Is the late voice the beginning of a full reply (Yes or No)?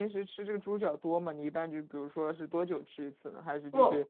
No